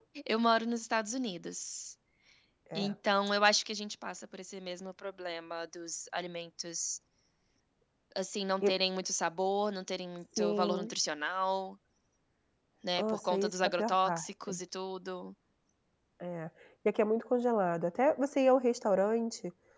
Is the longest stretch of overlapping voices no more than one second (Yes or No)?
No